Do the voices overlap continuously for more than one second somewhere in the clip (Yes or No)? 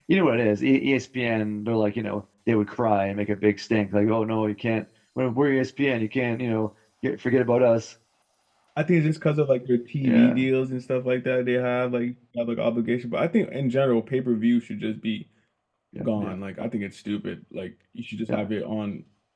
No